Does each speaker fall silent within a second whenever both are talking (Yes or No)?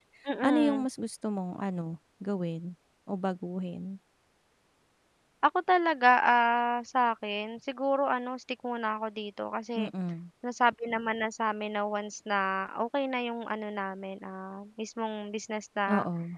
Yes